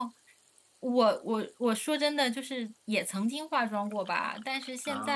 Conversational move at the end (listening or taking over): listening